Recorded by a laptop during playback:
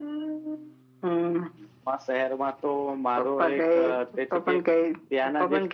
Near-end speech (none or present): none